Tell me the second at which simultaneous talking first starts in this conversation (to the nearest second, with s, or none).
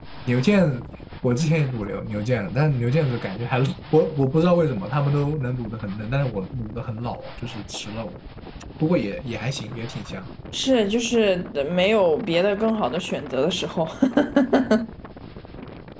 none